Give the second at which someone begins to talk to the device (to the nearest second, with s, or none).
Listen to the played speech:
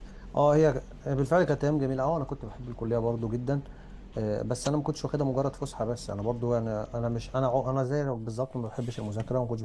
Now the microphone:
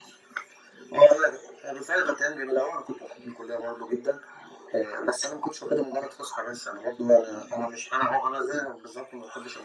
none